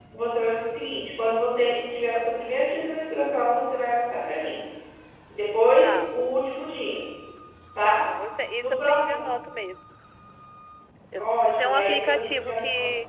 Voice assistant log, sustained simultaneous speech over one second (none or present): present